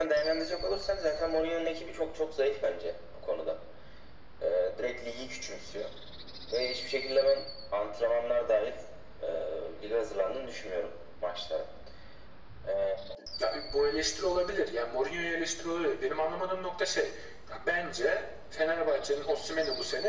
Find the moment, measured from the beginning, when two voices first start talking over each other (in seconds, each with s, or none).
none